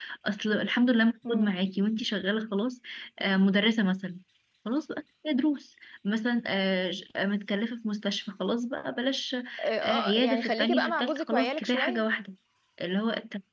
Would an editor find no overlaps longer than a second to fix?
No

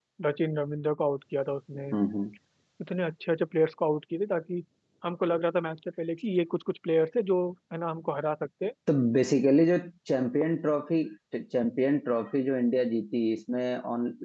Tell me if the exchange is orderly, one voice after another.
Yes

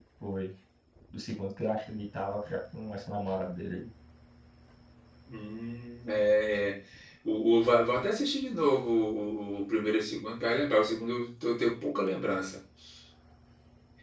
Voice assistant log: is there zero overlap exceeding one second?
Yes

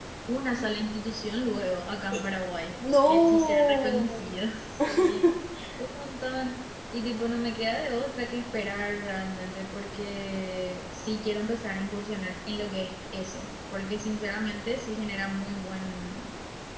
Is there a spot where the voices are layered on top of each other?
Yes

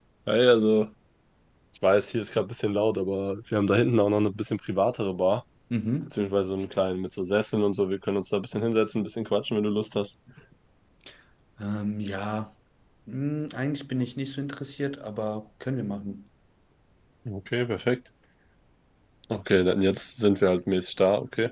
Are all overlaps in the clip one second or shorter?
Yes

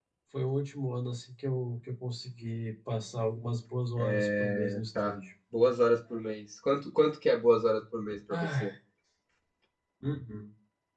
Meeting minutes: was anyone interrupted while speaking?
Yes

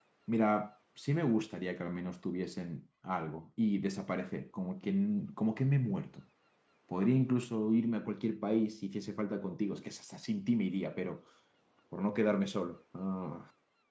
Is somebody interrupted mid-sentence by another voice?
No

